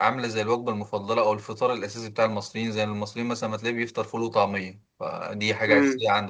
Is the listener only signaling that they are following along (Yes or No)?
Yes